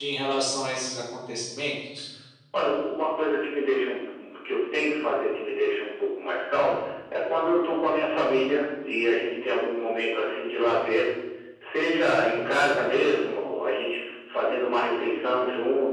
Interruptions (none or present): none